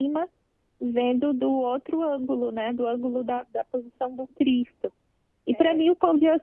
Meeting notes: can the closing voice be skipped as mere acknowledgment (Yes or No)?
Yes